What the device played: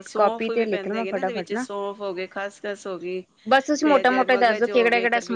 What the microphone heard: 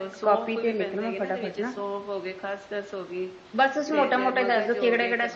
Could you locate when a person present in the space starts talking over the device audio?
none

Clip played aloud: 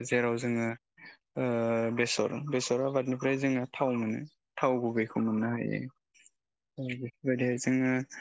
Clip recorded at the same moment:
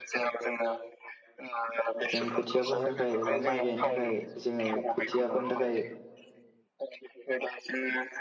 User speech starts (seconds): 2 s

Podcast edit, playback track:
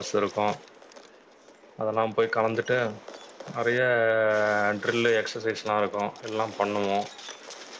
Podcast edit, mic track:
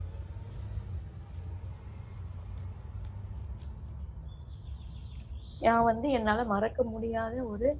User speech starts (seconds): 6 s

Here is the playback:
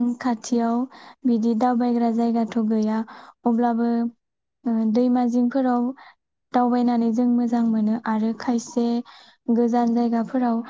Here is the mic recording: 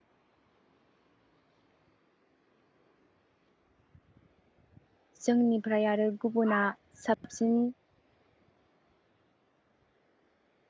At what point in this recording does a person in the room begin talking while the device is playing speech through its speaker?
5 s

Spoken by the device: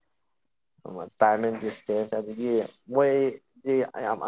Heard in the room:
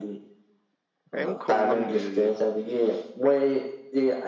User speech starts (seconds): 1 s

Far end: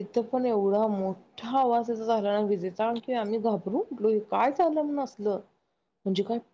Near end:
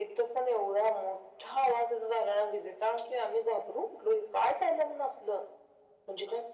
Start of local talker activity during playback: none

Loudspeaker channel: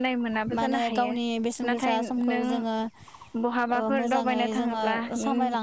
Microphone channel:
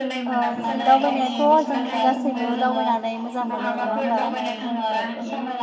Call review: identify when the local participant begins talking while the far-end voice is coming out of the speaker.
0 s

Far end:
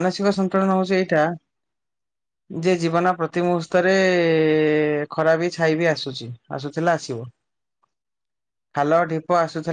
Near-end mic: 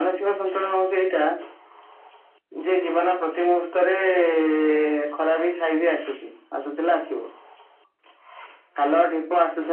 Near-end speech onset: none

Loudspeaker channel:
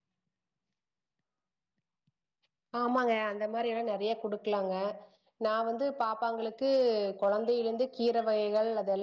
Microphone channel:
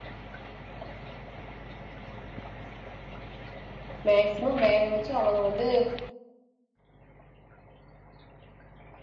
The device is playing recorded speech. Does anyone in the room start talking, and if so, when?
4 s

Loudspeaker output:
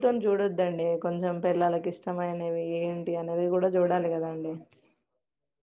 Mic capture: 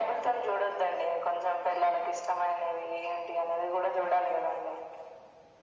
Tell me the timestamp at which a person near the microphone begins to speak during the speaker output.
none

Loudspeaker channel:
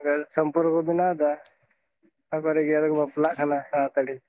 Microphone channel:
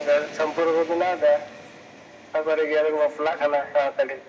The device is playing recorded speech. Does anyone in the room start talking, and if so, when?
none

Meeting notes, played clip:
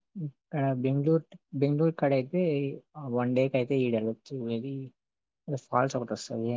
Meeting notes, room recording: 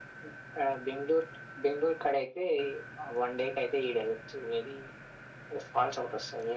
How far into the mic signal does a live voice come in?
none

